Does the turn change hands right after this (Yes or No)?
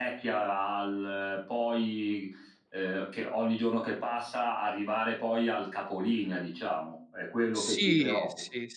Yes